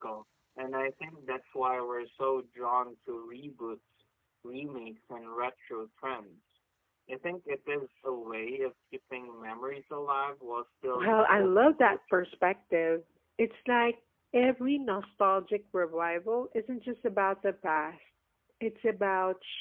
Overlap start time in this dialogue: 11 s

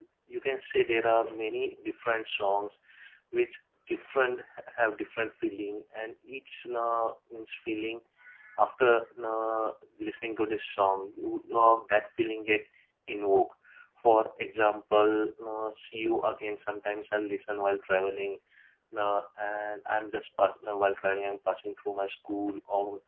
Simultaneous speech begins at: none

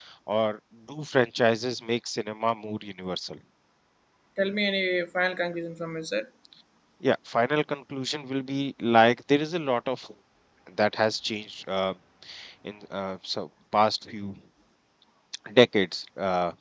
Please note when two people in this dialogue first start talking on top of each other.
none

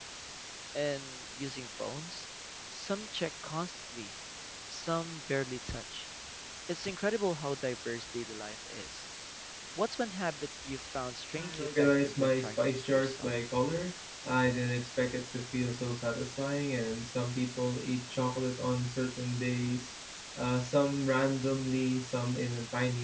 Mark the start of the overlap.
11 s

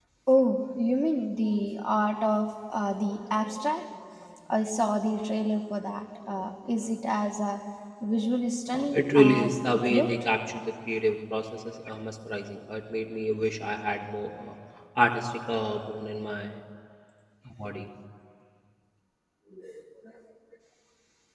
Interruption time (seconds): 9 s

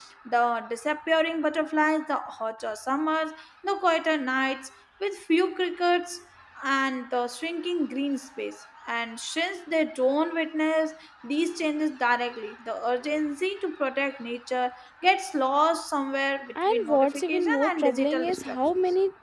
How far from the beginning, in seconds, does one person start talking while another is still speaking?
17 s

